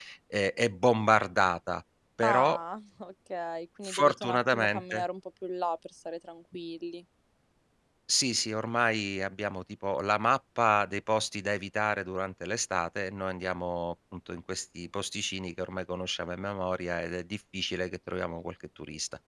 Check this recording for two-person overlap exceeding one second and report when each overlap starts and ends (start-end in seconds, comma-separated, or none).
3.8-5.0